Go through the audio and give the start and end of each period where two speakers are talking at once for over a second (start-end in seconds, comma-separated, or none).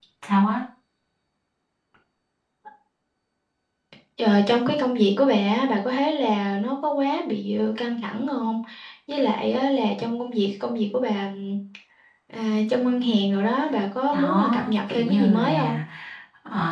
14.1-15.8